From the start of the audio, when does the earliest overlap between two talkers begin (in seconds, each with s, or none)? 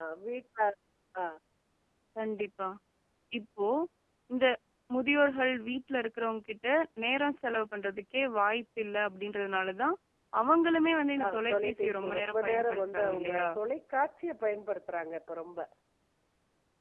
11.2 s